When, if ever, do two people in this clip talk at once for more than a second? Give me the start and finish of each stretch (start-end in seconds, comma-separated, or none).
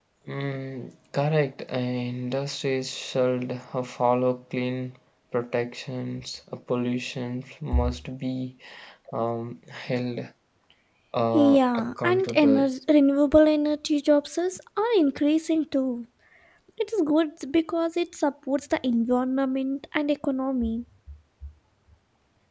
11.3-12.7